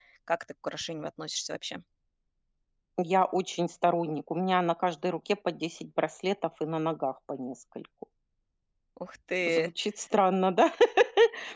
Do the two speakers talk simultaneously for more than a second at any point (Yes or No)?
No